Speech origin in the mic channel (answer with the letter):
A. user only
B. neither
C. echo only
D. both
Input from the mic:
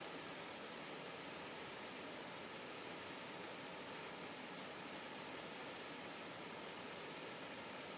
B